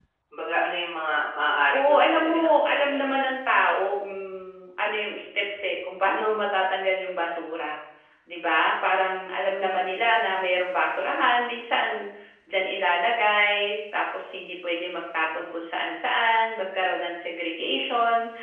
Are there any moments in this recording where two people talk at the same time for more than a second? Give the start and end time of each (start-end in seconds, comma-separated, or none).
1.7-3.0